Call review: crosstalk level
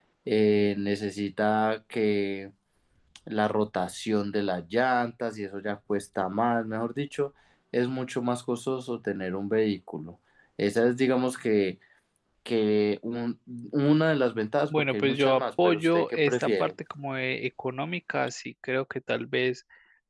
present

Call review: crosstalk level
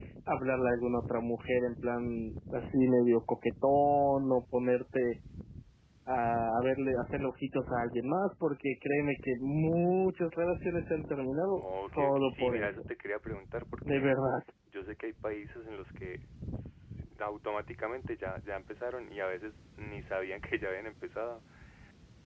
present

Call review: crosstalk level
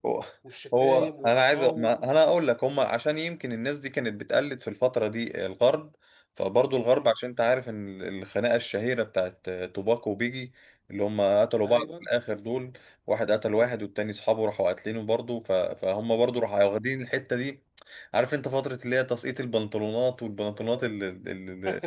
present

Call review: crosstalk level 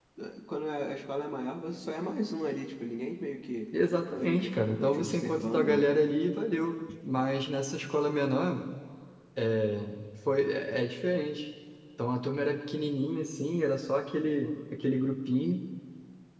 present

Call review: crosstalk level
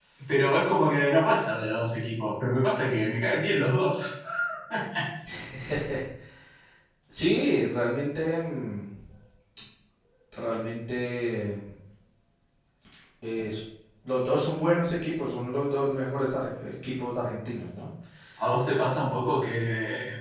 none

